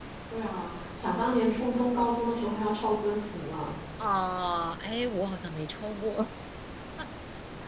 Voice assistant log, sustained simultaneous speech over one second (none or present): none